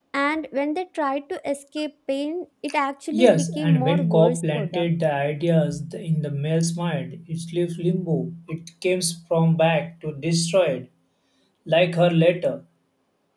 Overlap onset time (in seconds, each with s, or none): 3.1 s